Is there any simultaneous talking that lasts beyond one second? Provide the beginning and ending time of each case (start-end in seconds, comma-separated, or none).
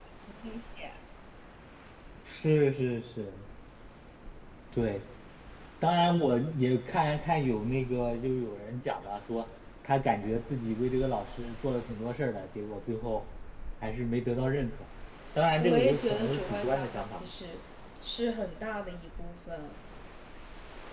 15.6-17.3